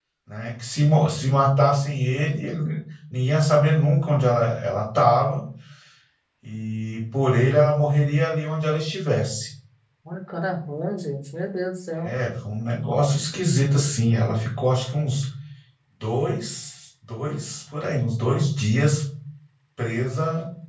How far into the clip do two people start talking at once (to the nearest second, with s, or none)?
none